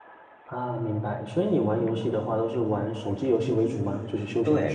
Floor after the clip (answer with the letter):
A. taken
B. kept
A